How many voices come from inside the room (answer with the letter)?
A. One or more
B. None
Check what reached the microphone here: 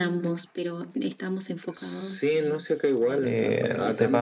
A